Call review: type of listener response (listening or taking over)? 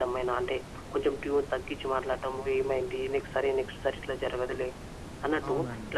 listening